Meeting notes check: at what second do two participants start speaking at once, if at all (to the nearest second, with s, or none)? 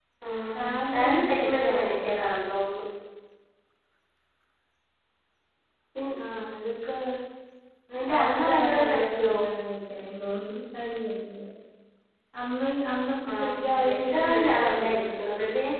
1 s